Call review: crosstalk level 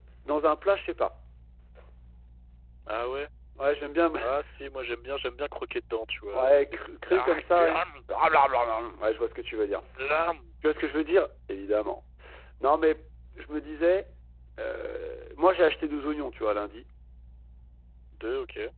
present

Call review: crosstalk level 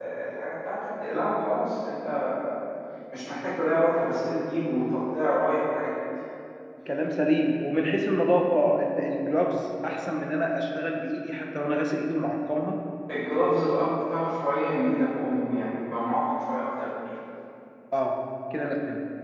none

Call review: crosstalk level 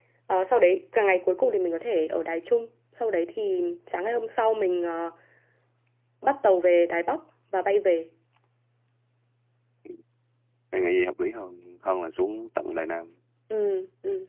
none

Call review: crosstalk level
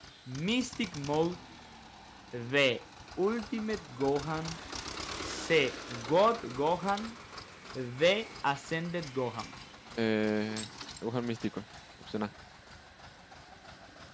none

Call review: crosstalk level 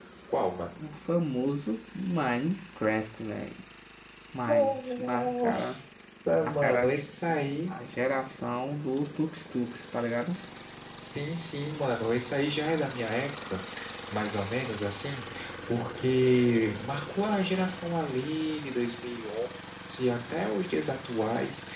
present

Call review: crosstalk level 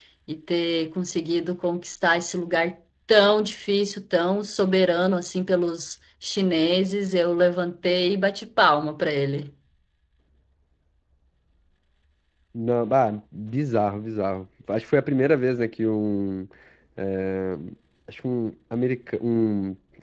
none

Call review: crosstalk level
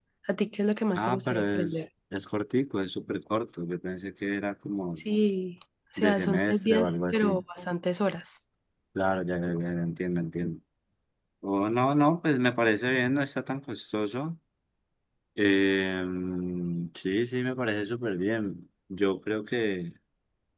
present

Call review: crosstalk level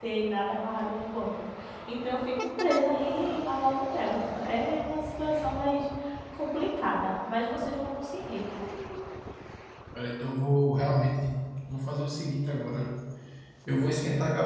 none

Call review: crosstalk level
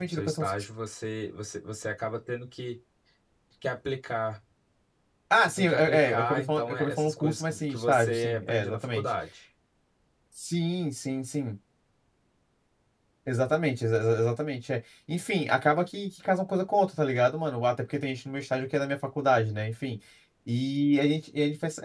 present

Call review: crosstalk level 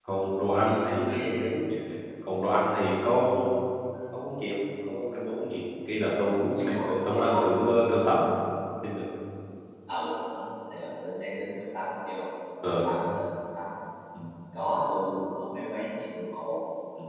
present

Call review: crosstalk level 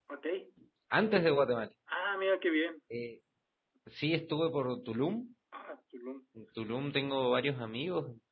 none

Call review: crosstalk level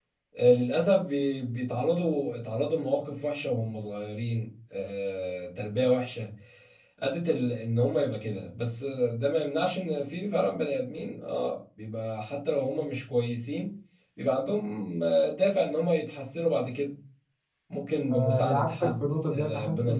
present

